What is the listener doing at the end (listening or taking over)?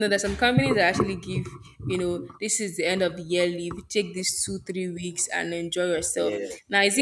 listening